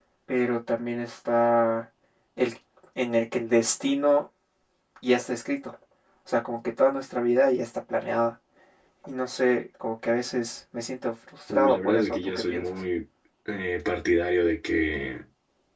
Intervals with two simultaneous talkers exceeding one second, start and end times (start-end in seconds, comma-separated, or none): 11.5-12.7